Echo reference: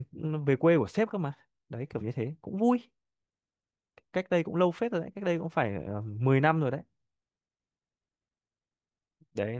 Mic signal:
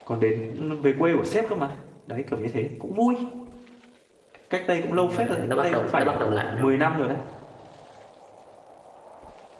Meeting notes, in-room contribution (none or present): present